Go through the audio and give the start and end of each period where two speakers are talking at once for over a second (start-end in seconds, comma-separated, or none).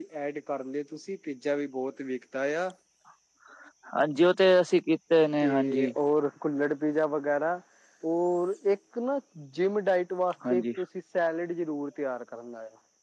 none